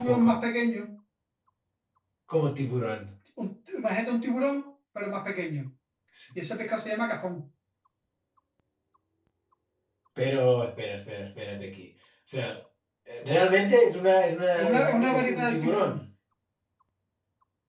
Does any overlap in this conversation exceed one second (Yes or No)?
Yes